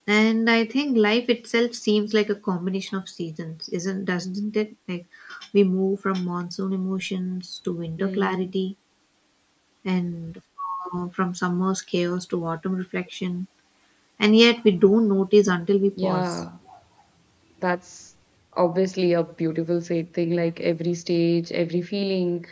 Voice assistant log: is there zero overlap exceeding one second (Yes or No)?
Yes